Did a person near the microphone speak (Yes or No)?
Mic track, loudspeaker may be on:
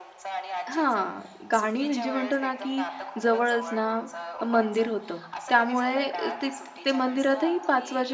Yes